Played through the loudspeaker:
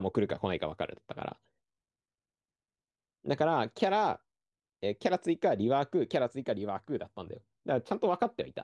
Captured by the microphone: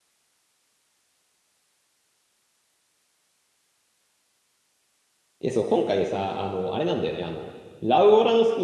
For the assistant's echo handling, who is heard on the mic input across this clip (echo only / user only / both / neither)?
user only